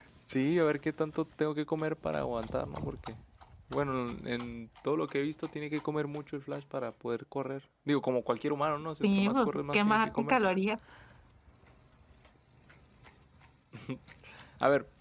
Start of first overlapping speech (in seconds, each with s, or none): 9.0 s